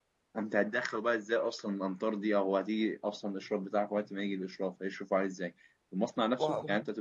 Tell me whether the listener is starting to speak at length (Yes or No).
No